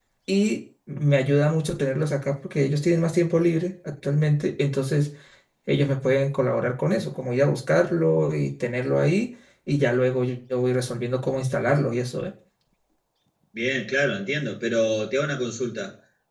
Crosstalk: none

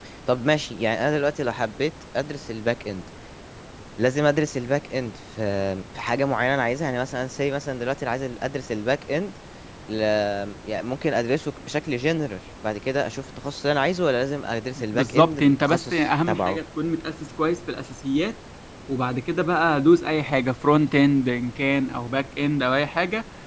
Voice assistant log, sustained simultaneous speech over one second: present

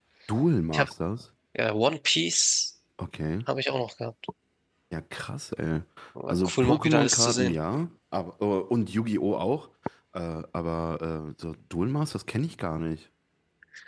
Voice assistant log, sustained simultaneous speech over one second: present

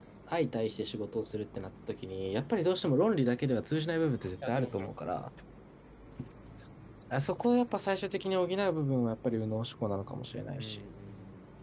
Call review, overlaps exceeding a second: none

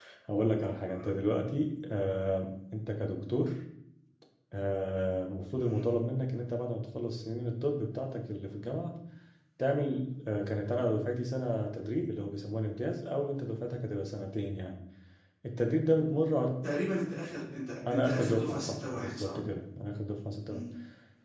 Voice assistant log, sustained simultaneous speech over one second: present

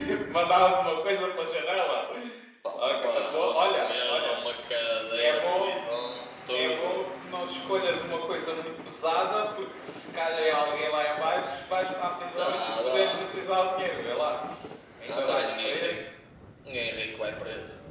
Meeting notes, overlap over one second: present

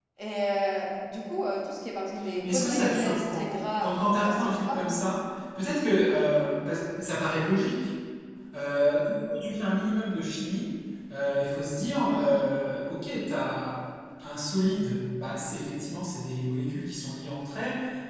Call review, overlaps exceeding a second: present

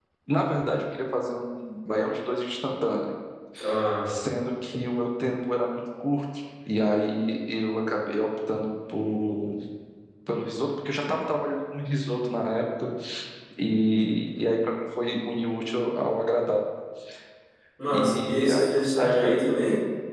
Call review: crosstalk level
present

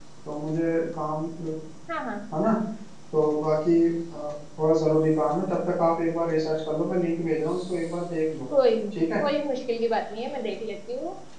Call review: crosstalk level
none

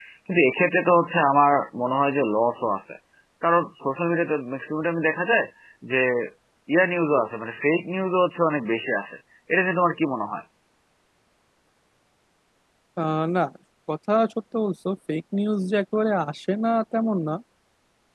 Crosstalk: none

